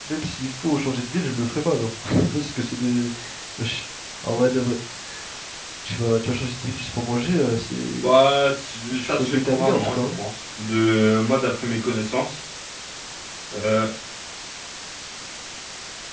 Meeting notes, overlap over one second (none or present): present